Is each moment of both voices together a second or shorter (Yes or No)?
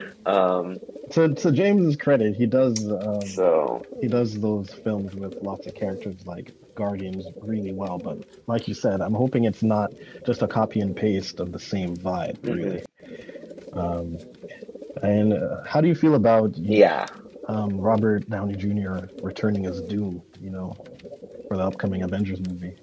Yes